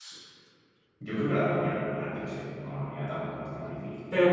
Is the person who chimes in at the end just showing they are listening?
No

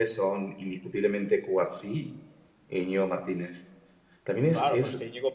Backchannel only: No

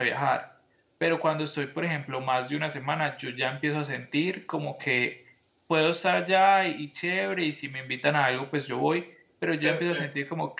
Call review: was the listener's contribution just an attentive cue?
Yes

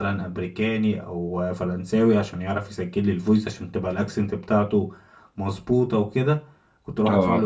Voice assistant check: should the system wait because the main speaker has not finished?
Yes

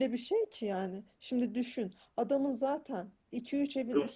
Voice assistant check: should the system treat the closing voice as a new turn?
No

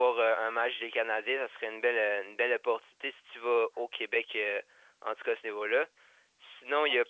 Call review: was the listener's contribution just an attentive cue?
No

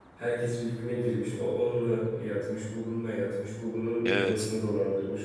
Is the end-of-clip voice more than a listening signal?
No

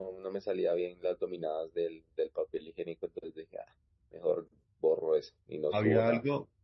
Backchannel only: No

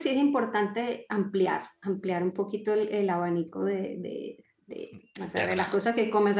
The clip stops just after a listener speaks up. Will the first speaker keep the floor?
Yes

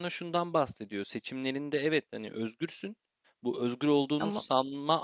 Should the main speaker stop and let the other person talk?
No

